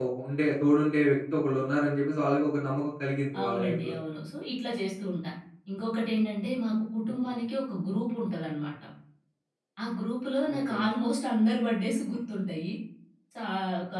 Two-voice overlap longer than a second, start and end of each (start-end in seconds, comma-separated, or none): none